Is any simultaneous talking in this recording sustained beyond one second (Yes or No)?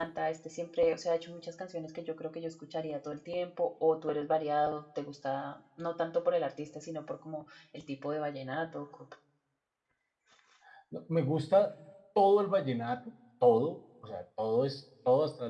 No